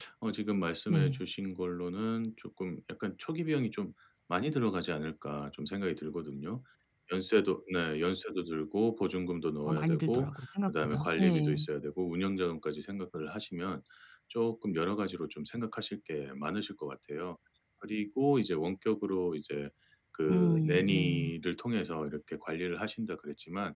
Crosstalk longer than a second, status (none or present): present